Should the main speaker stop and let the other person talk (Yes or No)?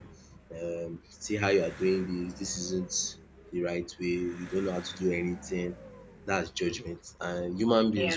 No